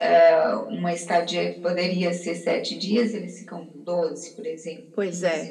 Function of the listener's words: taking over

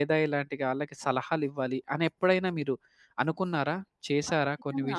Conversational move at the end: taking over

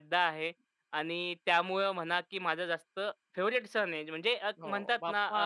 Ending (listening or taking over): listening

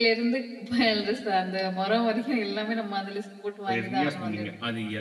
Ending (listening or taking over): taking over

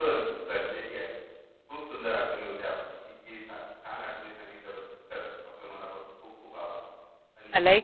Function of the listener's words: taking over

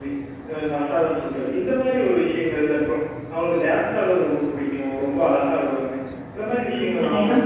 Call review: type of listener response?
taking over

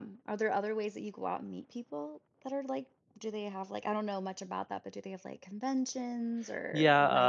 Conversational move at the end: taking over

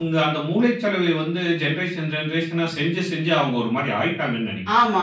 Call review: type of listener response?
taking over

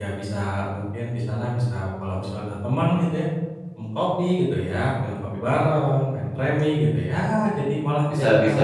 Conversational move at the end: taking over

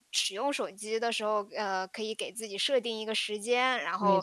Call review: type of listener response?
listening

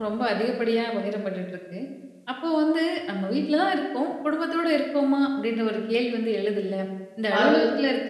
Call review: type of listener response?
listening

